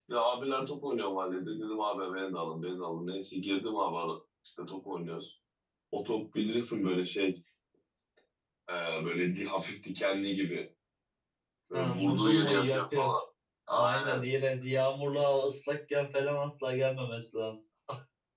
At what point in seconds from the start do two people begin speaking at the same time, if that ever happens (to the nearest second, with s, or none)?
12 s